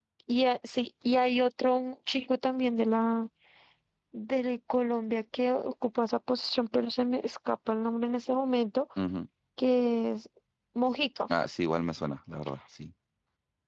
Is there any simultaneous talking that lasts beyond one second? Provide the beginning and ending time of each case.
none

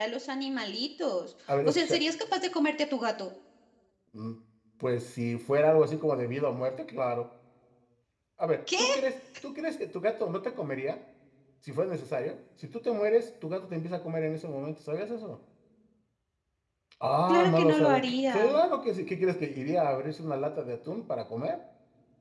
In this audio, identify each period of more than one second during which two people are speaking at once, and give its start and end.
17.3-18.5

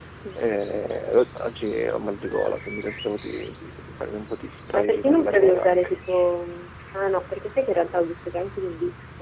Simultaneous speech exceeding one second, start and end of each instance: 4.7-6.0

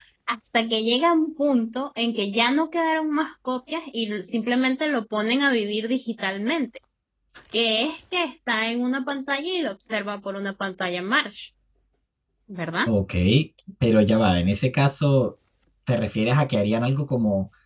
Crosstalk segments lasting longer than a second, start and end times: none

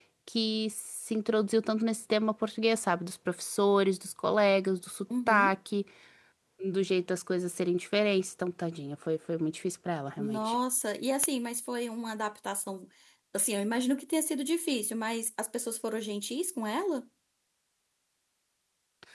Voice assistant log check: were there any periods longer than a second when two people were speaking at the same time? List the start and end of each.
none

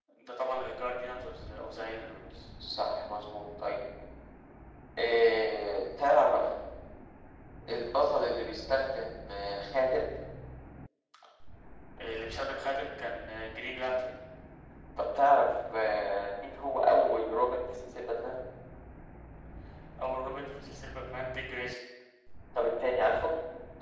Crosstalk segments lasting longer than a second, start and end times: none

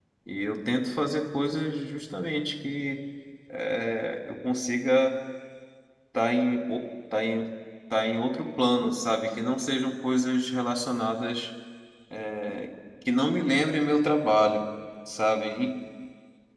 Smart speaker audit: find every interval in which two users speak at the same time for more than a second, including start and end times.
none

